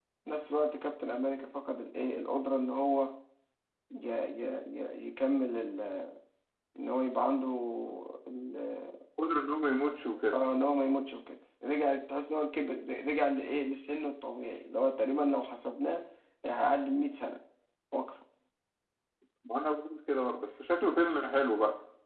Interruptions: none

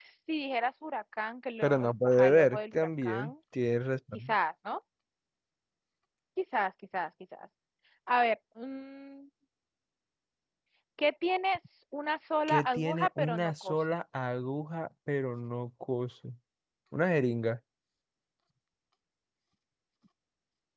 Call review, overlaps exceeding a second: present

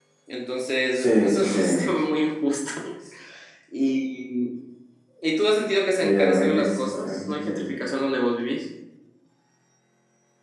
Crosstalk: present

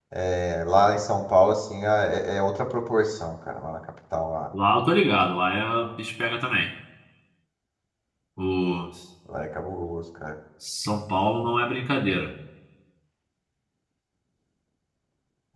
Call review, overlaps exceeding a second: none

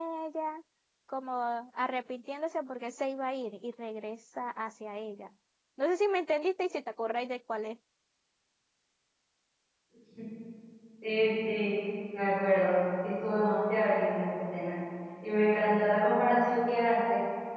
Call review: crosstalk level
none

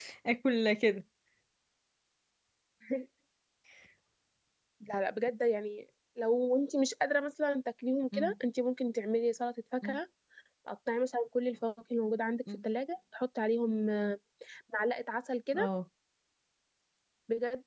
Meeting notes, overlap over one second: none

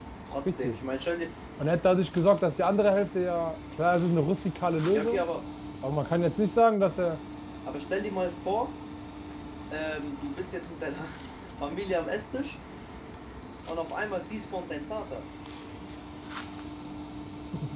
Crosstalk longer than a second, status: none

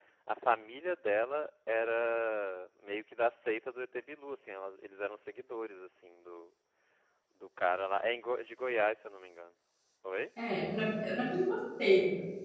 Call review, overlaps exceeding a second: none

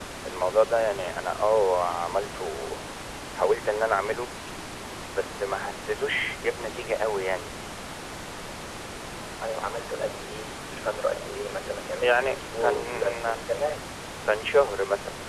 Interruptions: present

